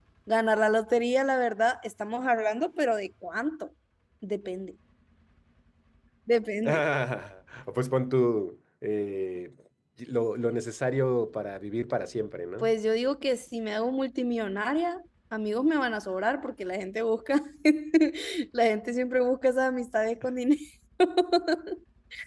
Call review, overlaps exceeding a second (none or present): none